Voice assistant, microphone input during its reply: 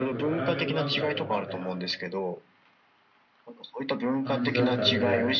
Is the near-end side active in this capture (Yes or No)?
Yes